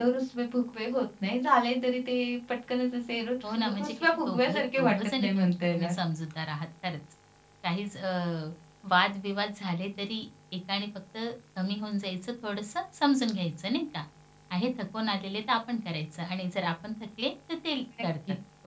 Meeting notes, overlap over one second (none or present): present